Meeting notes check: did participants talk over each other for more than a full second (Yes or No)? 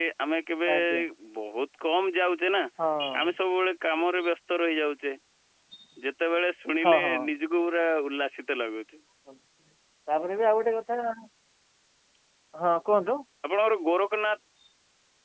No